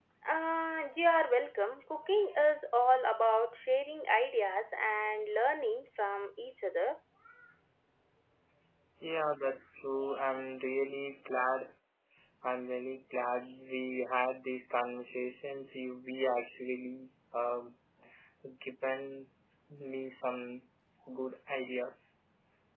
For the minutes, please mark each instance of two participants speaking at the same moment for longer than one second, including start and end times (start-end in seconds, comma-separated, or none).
none